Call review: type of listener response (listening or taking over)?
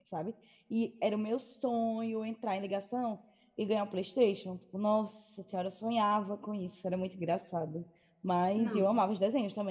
listening